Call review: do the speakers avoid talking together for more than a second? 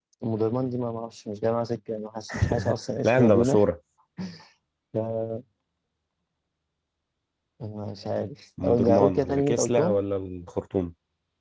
No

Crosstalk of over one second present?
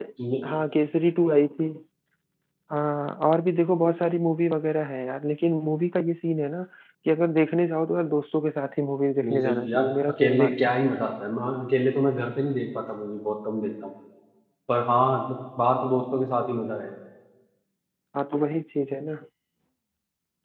Yes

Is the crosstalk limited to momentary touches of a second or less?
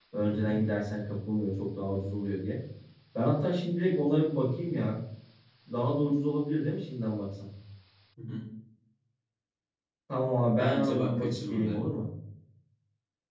No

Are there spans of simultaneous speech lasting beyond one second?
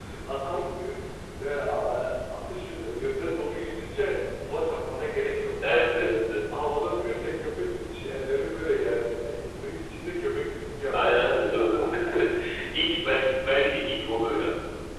No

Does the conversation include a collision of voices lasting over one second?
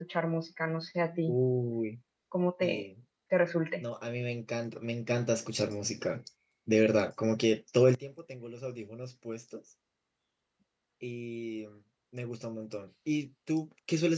No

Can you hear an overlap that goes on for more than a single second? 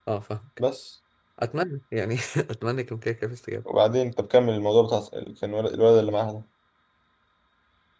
No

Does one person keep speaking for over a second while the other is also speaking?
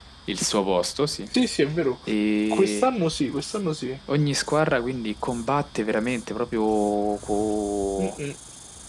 No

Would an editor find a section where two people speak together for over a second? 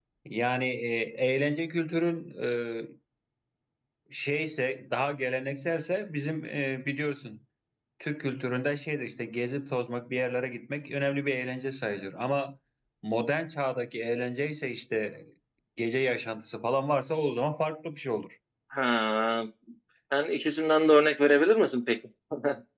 No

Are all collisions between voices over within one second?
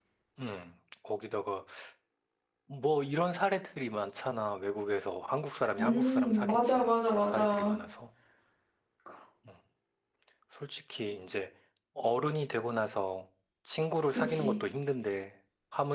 No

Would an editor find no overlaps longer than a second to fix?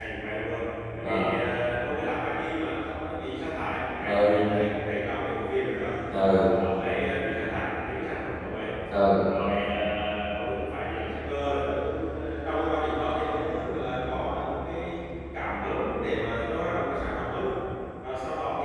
Yes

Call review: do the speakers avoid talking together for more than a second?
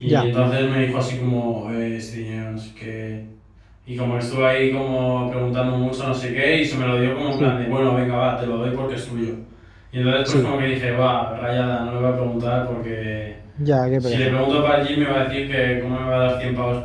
Yes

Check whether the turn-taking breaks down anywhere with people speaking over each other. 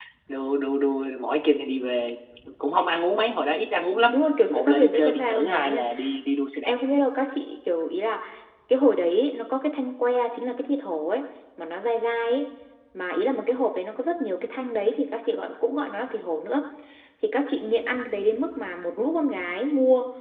Yes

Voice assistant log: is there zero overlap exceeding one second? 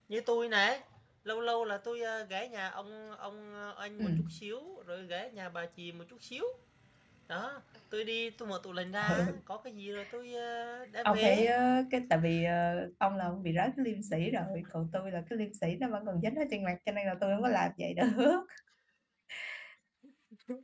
Yes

